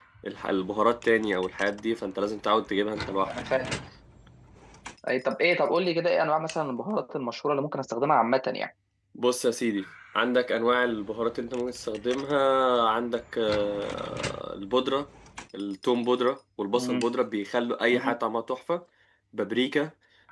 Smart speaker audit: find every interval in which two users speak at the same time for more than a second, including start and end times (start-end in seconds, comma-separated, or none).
none